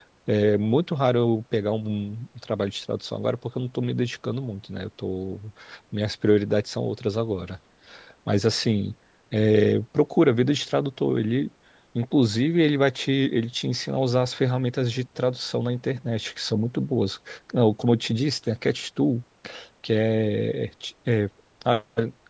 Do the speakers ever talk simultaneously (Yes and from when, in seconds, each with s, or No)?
No